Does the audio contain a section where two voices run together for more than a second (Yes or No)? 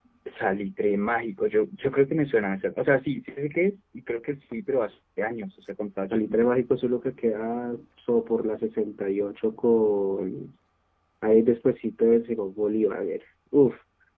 No